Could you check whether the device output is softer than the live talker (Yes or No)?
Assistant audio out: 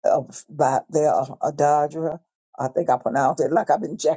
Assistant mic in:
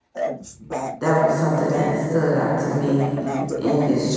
Yes